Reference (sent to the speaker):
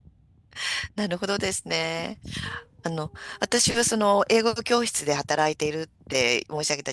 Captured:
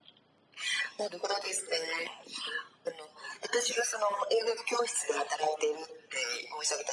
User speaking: No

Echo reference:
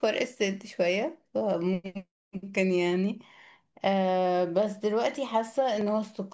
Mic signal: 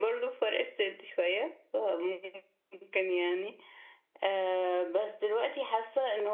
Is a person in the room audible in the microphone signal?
No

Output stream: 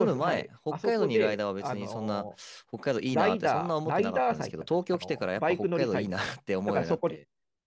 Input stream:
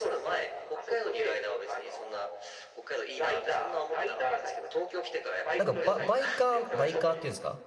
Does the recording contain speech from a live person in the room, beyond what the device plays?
Yes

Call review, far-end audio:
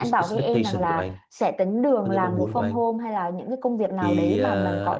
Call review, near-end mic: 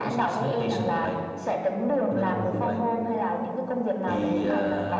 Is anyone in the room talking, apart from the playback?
No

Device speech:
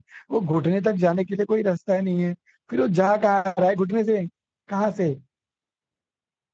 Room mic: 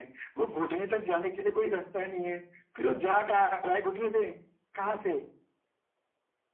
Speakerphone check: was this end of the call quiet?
Yes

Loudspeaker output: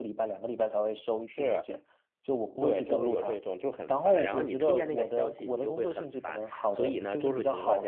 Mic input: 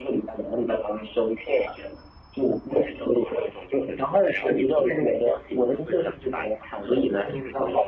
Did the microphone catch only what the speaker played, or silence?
Yes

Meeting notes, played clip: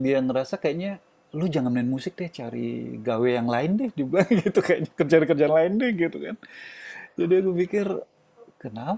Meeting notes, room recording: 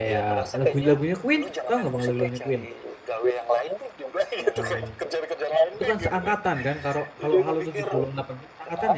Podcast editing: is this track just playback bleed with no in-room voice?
No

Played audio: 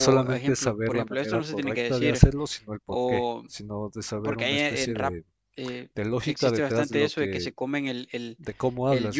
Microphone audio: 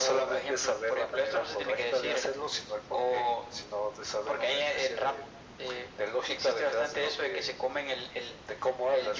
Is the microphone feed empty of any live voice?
Yes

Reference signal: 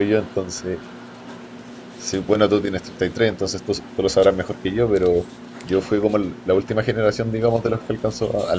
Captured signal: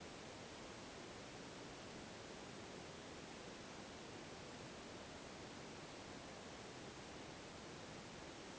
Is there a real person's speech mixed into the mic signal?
No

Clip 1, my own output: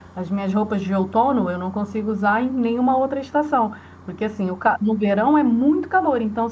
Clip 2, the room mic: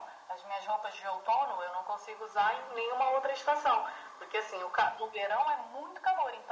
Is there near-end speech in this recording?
No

